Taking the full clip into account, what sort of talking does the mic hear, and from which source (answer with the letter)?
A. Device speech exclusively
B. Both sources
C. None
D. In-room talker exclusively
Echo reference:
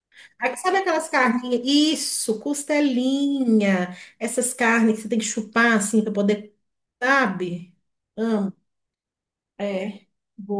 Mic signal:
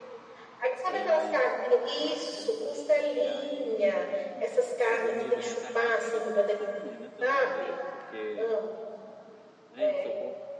B